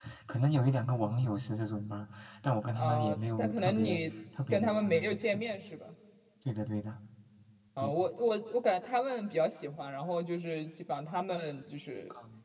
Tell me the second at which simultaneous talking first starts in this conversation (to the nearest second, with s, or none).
3 s